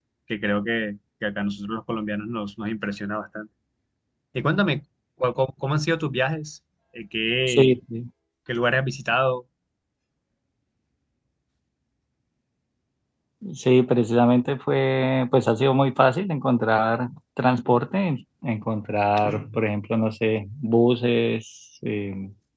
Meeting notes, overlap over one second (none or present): none